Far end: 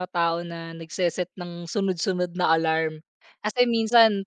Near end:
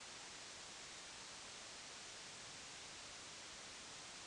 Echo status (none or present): none